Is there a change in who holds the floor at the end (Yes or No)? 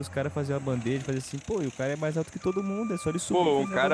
Yes